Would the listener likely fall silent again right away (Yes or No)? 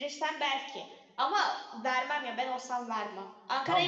Yes